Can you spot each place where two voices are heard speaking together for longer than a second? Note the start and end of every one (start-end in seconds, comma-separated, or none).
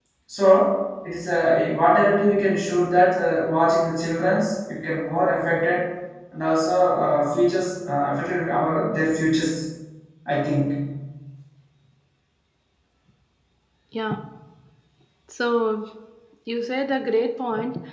none